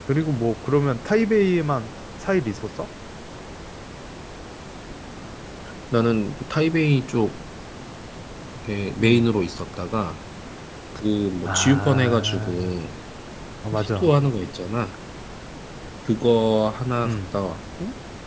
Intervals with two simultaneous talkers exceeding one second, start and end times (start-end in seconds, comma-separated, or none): 11.4-12.7